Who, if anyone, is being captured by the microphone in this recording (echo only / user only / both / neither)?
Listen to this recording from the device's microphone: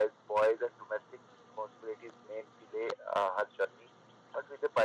echo only